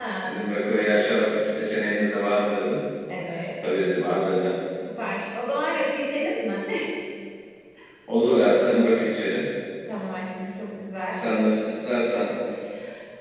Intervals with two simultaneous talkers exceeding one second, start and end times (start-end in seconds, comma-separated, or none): none